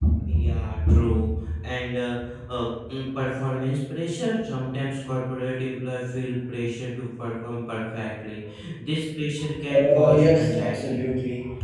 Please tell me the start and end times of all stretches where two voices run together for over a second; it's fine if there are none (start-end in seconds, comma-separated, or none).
9.7-11.0